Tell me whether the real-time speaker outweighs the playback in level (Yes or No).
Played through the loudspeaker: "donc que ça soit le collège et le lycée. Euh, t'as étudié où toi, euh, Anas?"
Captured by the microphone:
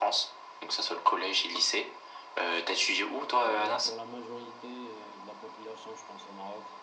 No